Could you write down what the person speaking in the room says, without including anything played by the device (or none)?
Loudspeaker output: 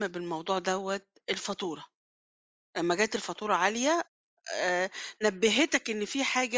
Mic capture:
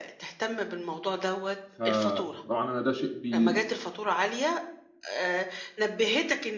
فطبعًا أنا ده شيء بي